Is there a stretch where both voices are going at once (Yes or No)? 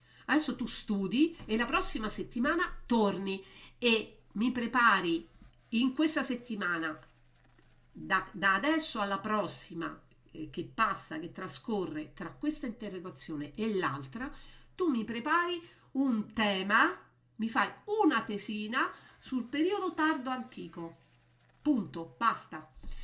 No